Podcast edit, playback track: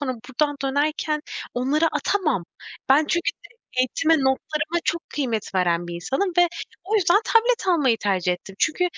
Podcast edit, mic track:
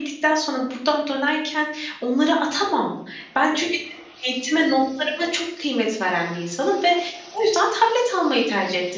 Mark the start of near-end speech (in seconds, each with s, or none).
none